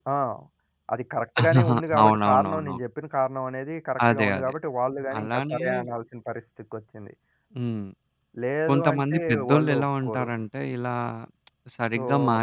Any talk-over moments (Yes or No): Yes